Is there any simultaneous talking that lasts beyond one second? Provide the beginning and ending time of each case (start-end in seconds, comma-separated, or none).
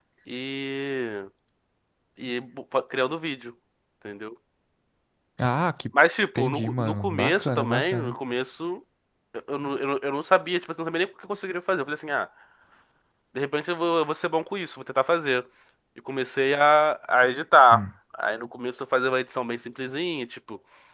6.4-8.2